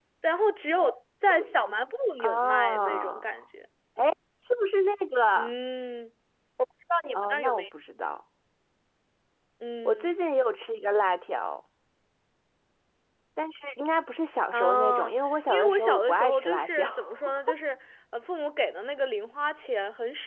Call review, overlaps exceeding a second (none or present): present